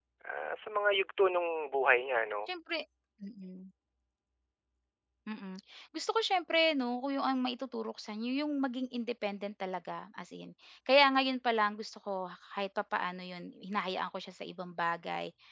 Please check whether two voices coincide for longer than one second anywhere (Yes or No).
No